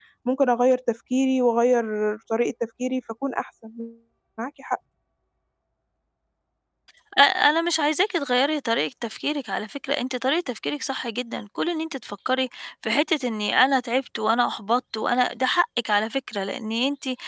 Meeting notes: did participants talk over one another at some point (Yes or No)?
No